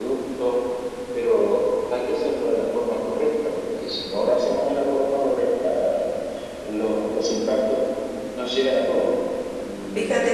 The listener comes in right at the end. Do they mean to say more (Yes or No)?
Yes